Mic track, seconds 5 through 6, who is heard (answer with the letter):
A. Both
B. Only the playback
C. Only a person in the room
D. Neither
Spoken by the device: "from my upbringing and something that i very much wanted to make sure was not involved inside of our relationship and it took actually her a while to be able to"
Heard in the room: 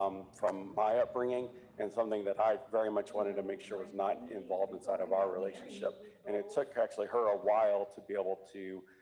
A